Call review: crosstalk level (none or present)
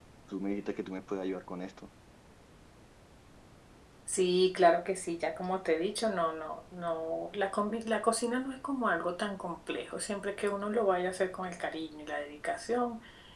none